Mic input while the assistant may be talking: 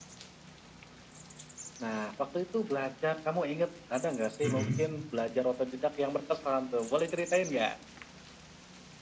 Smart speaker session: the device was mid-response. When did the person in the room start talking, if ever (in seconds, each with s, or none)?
4.4 s